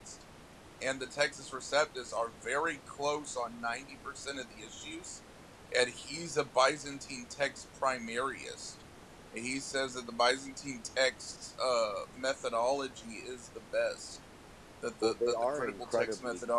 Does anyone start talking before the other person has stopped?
Yes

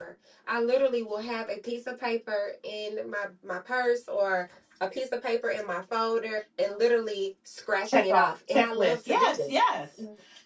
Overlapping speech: Yes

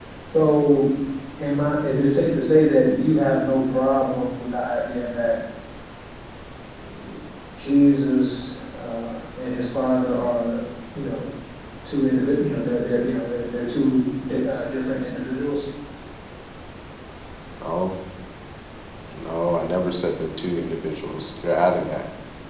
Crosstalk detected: No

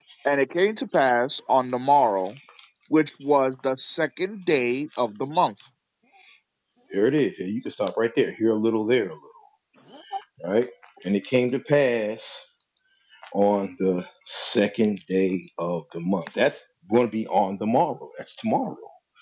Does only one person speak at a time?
Yes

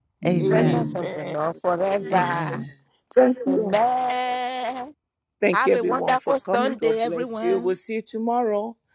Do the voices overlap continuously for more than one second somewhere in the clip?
Yes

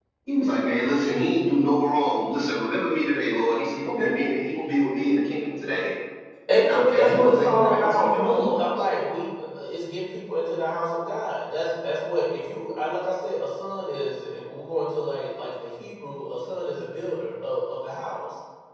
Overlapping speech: Yes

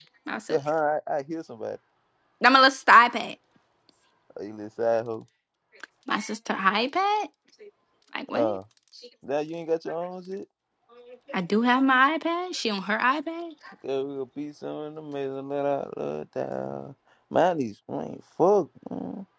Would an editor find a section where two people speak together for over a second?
No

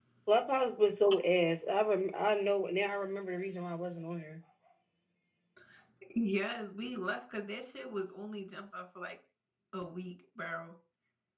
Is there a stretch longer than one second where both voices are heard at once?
No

